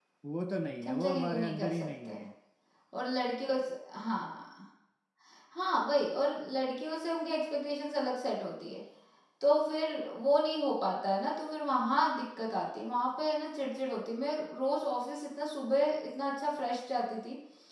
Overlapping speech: Yes, from 0.8 s

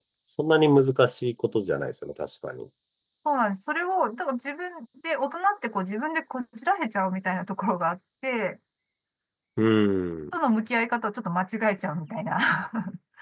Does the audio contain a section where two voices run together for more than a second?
No

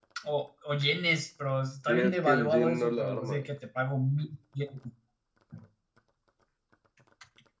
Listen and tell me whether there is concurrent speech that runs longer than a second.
Yes, from 1.9 s

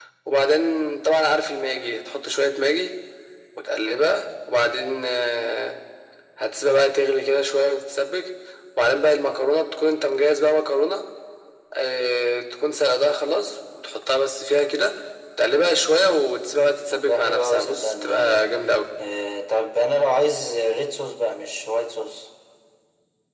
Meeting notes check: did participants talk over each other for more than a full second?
Yes, from 16.9 s

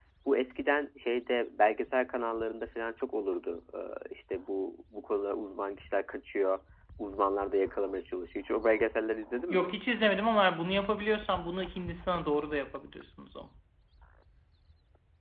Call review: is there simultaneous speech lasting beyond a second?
No

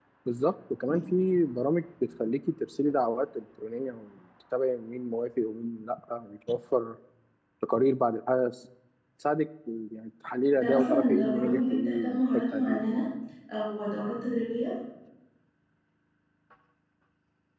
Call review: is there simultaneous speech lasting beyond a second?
Yes, from 10.6 s

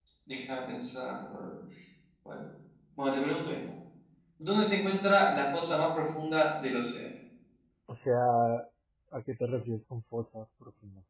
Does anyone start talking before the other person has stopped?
No

